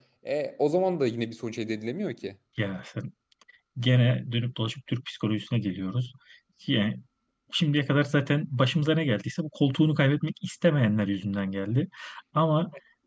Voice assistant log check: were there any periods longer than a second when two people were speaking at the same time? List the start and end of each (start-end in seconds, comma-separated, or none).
none